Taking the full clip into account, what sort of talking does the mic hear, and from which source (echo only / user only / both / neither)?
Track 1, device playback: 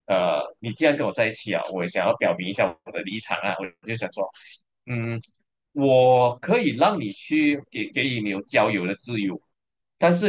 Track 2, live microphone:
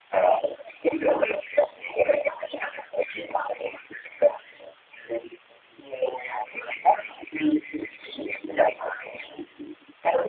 echo only